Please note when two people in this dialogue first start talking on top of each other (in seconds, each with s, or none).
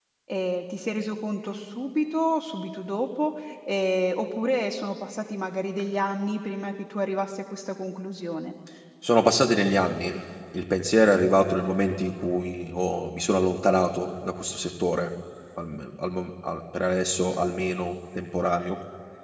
none